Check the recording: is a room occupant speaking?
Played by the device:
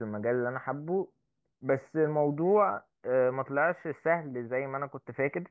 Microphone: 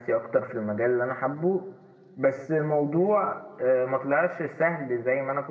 No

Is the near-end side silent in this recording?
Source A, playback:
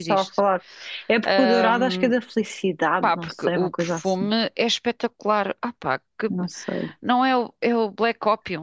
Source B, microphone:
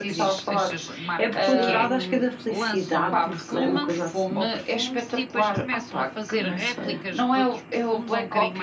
No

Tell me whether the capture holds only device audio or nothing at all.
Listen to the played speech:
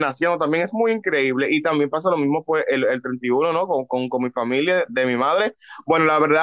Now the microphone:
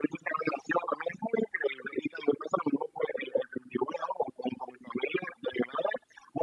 Yes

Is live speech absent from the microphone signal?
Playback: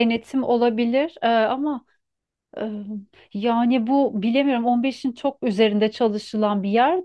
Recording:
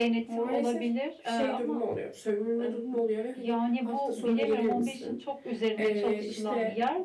No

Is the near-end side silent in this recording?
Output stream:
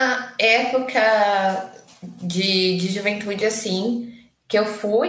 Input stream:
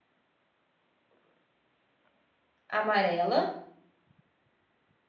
No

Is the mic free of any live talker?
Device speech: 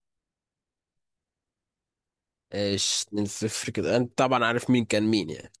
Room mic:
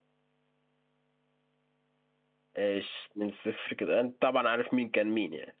Yes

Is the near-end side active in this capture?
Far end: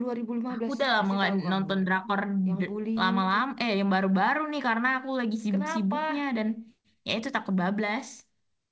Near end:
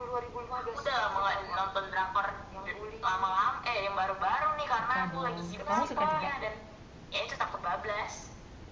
Yes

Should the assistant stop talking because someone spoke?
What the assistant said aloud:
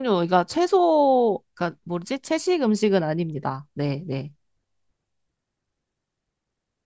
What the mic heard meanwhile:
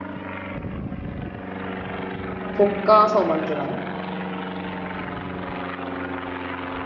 Yes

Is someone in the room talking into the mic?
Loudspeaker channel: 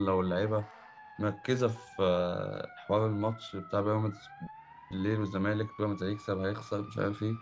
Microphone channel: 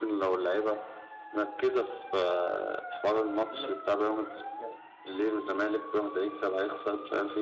Yes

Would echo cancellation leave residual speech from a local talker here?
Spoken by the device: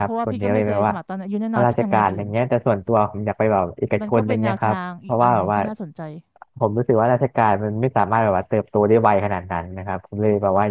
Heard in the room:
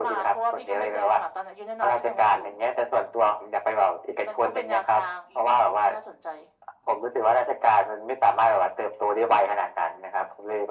No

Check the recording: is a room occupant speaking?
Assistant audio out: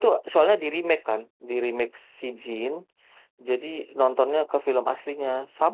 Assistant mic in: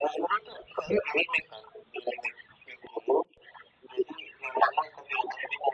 No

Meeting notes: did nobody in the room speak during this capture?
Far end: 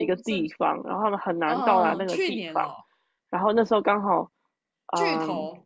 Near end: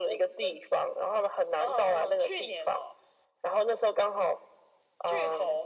Yes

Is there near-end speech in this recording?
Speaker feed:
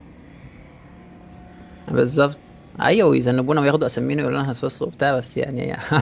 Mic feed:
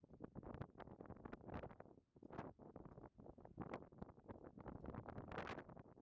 No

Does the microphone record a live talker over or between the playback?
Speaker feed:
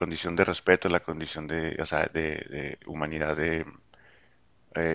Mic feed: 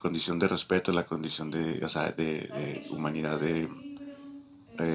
Yes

